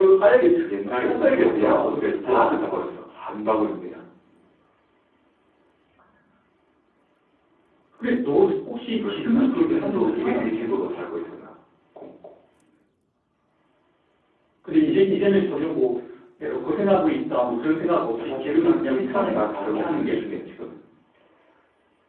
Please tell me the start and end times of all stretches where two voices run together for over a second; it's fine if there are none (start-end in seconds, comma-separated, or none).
0.8-2.6, 9.0-10.8, 18.1-20.2